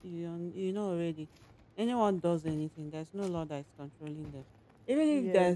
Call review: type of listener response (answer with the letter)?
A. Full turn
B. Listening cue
B